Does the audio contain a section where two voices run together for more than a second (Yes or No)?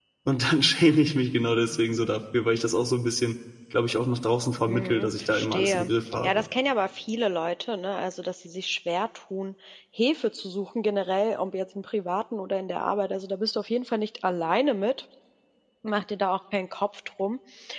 Yes